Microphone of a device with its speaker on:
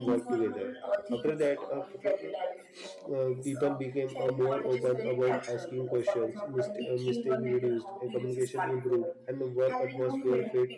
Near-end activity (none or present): present